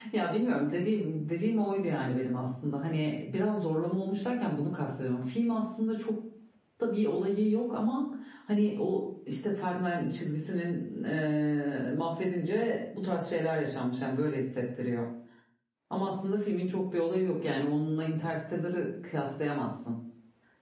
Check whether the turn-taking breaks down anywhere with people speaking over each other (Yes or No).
No